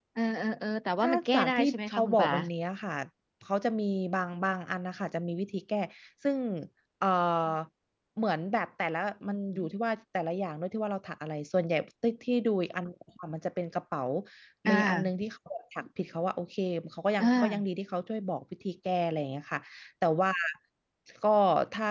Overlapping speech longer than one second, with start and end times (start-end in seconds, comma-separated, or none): 1.0-2.3